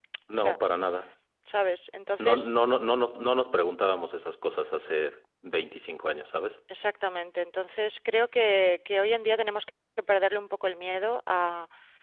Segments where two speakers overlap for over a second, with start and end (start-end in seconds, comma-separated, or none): none